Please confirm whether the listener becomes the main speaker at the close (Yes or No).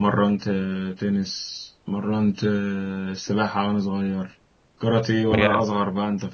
No